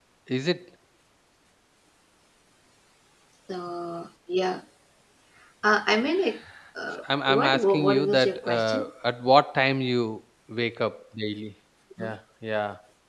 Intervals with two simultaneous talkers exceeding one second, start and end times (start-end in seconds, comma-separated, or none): 7.0-8.9